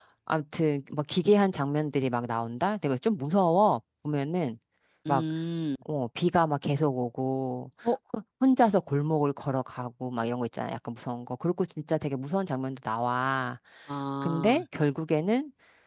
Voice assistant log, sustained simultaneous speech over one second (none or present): none